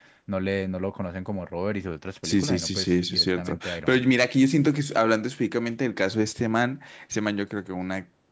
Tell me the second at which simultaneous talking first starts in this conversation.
2.2 s

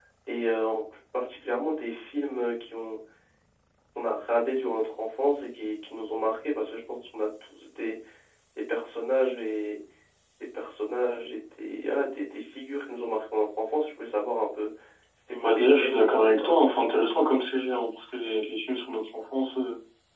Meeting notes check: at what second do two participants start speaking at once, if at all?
15.4 s

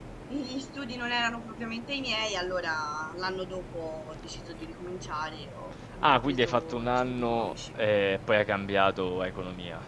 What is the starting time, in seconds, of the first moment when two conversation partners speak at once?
5.9 s

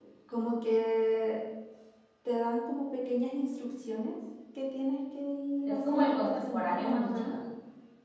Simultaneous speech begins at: 5.7 s

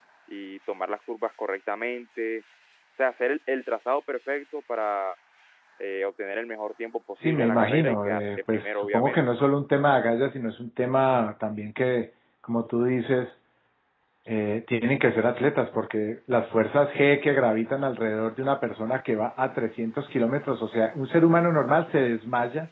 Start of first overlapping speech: 7.2 s

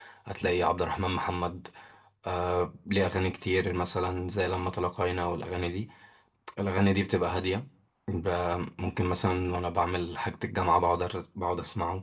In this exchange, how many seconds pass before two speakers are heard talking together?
none

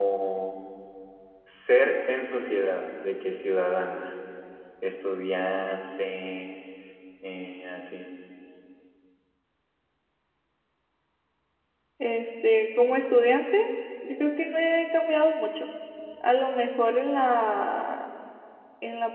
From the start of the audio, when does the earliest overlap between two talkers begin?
none

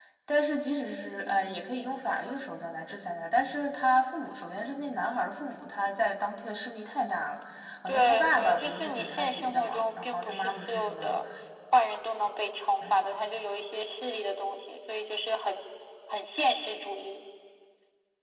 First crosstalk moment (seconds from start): 7.9 s

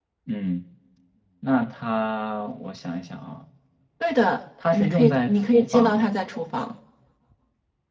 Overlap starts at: 4.7 s

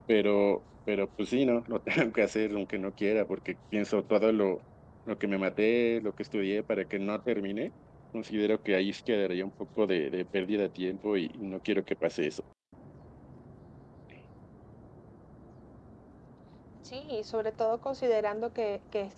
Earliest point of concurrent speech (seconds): none

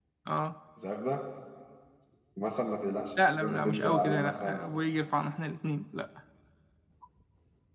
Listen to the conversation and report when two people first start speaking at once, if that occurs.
3.2 s

